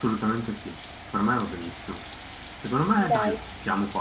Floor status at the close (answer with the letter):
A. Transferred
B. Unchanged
B